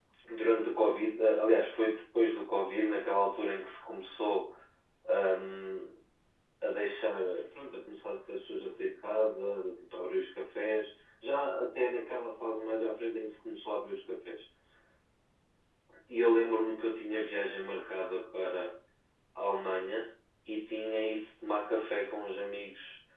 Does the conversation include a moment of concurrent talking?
No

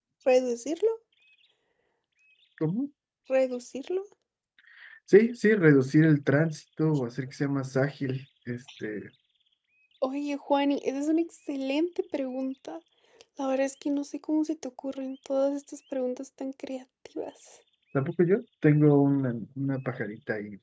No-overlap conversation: Yes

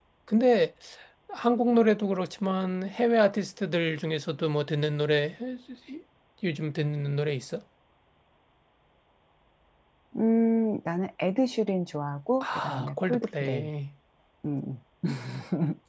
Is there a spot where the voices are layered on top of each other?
Yes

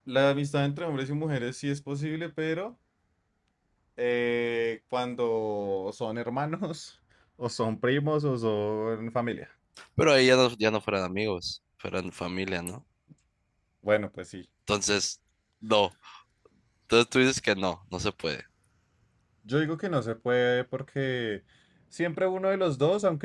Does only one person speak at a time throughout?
Yes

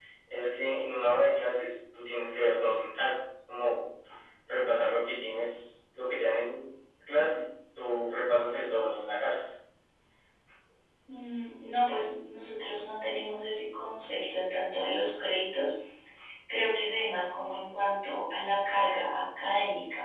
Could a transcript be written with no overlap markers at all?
Yes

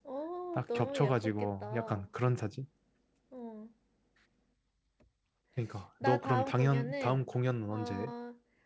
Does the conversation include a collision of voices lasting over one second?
Yes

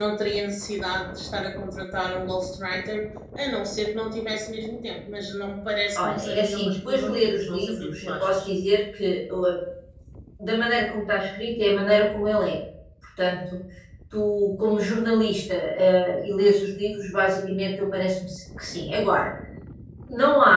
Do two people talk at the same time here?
Yes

